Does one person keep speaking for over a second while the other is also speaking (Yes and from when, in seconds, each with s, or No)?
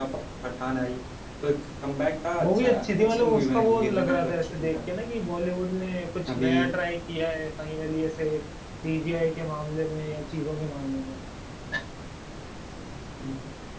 Yes, from 2.4 s